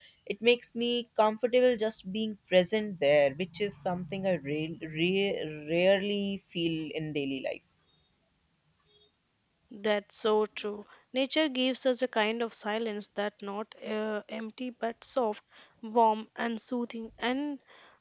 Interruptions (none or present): none